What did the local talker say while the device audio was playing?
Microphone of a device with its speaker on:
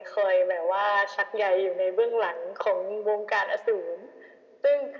none

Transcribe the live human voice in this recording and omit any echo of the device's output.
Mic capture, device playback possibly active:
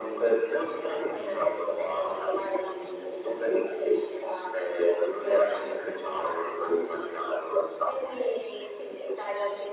none

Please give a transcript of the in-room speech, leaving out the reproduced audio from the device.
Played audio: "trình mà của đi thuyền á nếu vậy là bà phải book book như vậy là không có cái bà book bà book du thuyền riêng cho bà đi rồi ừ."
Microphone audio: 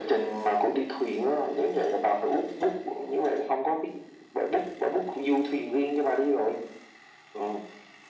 none

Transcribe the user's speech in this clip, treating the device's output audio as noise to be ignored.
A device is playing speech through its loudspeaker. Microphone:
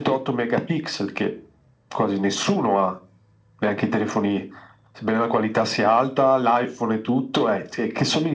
none

